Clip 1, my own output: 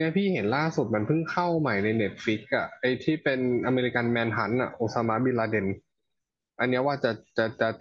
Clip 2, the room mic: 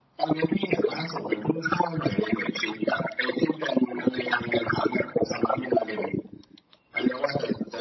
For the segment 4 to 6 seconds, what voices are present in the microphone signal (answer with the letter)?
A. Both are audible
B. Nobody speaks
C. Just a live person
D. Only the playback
D